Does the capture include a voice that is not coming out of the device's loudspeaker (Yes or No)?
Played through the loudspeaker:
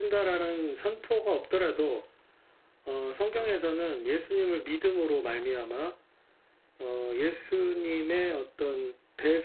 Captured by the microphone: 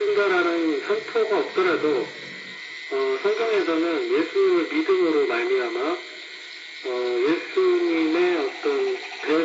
No